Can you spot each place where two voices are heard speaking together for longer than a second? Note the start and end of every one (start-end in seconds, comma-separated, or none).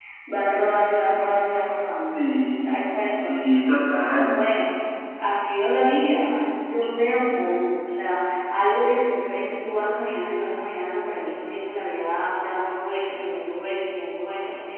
none